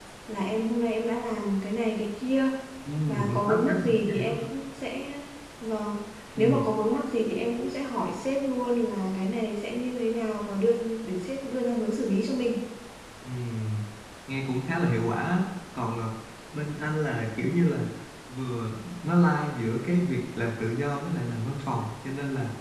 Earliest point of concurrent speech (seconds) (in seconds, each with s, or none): 3.3 s